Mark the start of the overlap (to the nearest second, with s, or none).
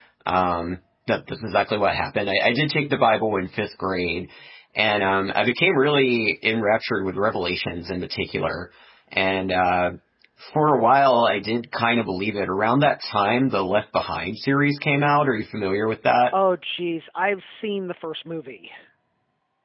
none